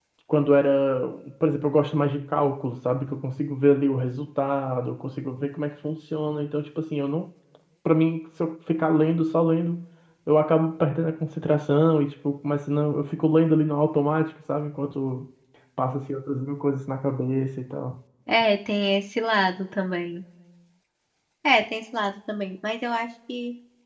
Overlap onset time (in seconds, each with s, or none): none